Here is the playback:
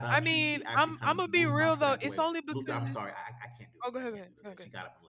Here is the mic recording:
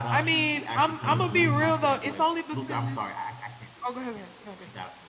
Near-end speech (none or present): present